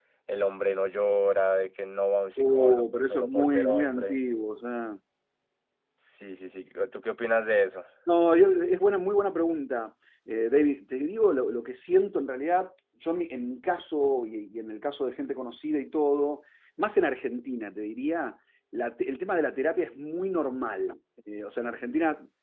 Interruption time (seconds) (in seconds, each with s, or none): 2.4 s